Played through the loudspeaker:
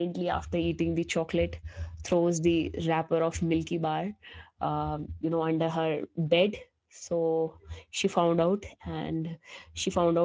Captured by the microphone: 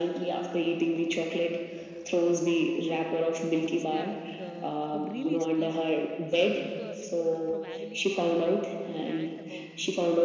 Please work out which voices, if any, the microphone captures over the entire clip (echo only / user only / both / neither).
both